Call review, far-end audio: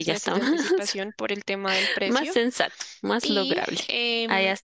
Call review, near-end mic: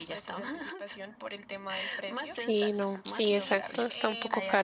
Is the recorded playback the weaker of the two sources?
Yes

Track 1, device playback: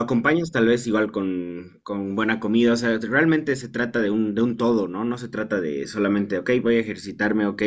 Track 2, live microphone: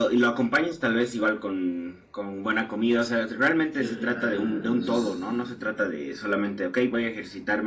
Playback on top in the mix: Yes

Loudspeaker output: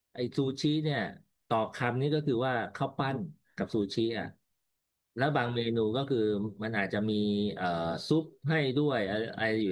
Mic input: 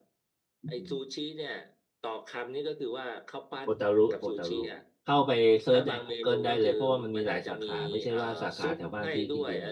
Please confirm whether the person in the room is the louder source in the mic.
Yes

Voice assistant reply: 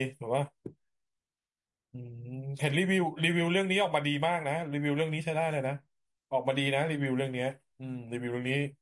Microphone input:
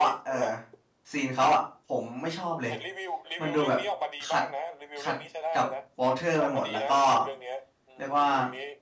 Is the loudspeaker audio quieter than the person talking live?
Yes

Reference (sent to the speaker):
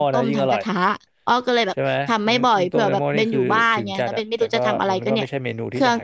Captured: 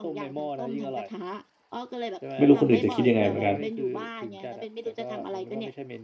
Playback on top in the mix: No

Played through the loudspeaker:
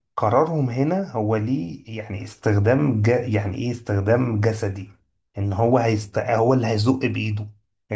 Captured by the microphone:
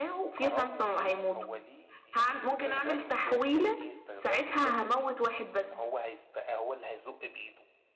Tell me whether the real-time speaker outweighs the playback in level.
Yes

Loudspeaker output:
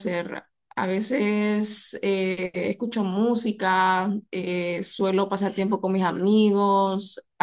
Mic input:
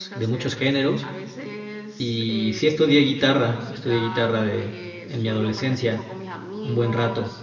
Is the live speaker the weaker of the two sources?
No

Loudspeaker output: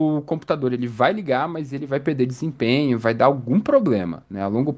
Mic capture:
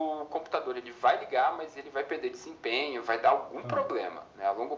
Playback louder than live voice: Yes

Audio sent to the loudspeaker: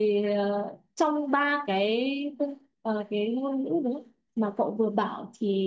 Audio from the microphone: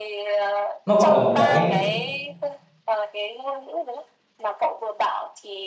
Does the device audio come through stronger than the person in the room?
No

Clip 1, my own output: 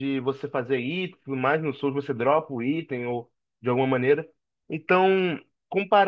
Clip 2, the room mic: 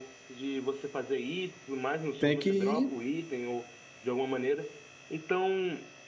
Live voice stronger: Yes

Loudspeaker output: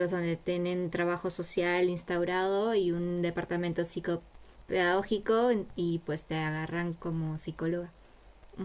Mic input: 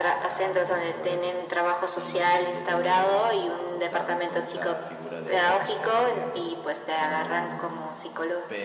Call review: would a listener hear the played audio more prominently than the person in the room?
Yes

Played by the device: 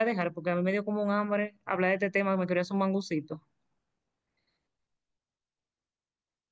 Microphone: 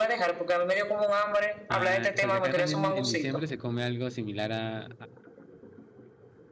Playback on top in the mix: Yes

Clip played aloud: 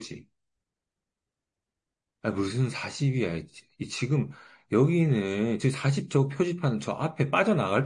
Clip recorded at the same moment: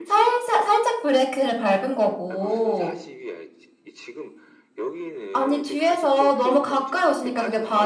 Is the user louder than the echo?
Yes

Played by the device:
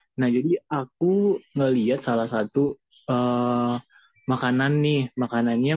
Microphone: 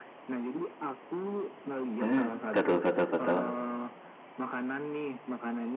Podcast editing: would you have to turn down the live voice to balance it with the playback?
Yes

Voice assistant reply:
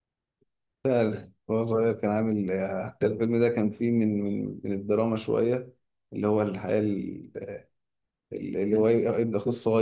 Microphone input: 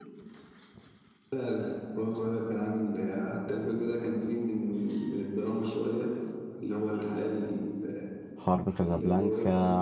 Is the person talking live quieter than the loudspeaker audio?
No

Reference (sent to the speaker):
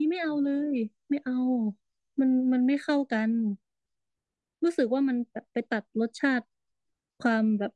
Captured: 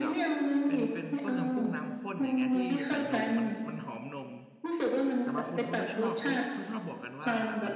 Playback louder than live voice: Yes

